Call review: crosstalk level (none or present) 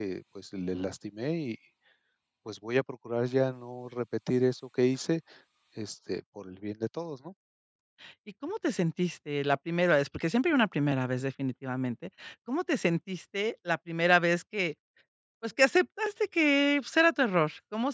none